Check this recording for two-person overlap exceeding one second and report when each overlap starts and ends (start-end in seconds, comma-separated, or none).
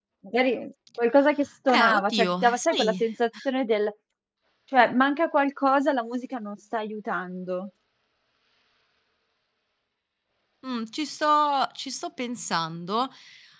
1.7-3.0